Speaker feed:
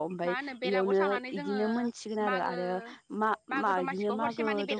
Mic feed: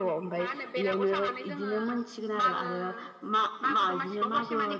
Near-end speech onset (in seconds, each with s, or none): none